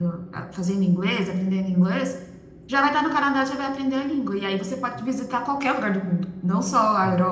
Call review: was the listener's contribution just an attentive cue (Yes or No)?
Yes